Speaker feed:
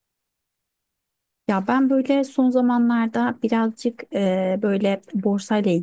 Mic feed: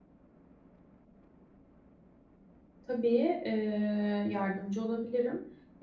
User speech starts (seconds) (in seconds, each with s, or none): 2.8 s